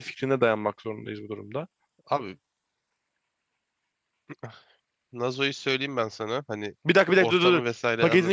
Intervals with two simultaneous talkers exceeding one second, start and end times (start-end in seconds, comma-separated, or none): none